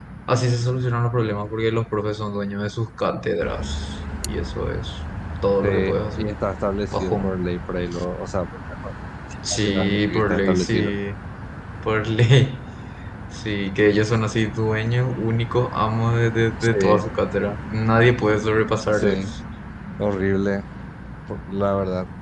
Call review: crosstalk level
present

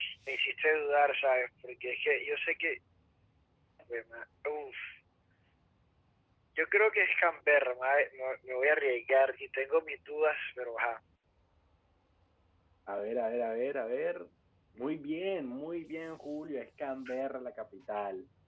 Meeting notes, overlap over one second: none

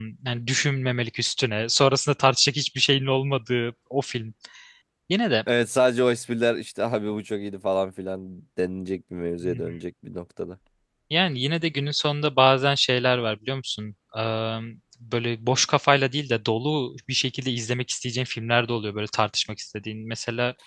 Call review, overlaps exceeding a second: none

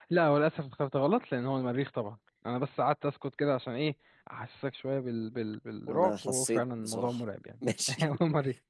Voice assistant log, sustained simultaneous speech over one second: present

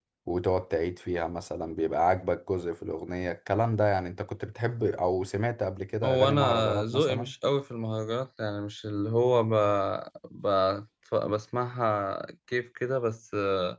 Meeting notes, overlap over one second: present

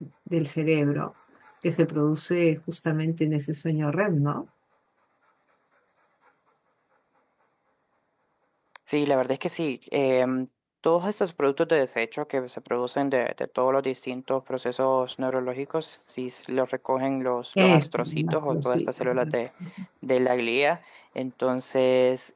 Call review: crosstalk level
present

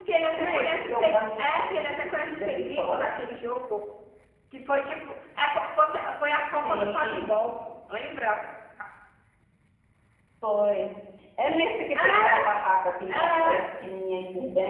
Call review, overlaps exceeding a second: present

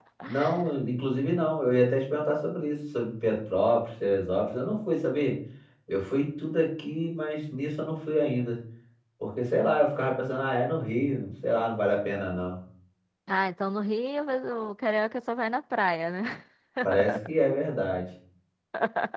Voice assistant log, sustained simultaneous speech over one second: none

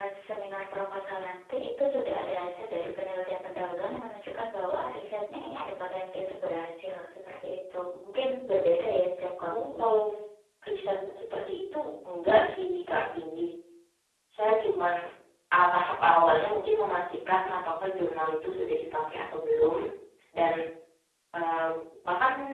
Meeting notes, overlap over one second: none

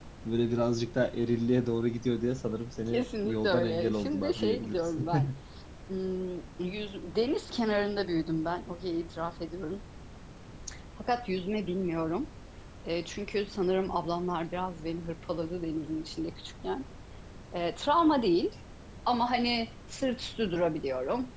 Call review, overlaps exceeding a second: present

